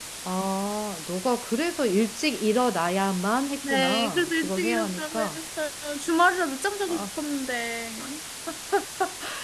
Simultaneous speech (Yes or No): Yes